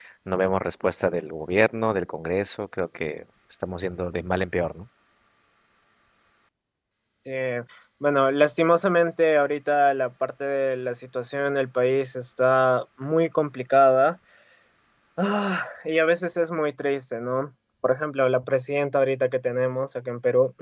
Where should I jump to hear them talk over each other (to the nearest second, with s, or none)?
none